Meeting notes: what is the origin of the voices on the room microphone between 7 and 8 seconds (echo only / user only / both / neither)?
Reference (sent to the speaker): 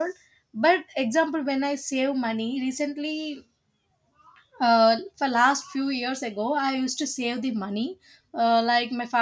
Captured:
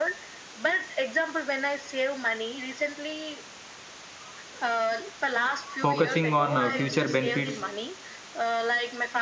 both